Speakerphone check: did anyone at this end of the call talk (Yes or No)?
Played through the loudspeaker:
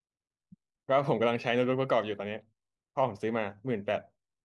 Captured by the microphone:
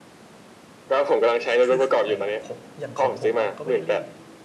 Yes